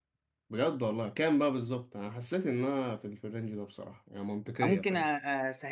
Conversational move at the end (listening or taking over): taking over